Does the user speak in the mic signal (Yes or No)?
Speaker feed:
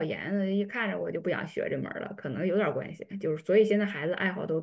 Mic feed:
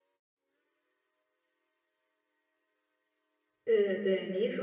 Yes